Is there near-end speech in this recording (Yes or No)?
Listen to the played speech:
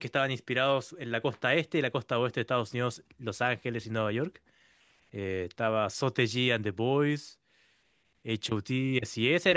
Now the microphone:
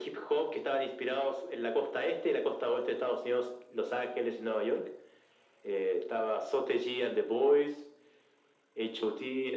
No